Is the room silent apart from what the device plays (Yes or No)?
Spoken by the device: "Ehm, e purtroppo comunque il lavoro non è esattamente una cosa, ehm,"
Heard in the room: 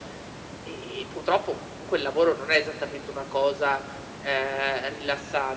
Yes